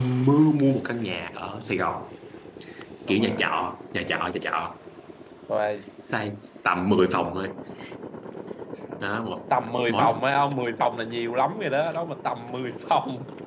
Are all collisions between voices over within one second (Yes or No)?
Yes